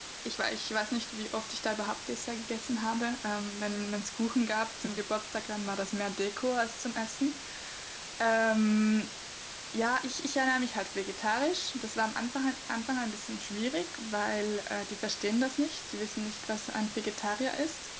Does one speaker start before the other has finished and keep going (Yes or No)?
No